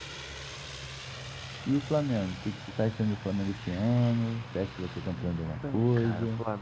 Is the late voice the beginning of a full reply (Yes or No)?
Yes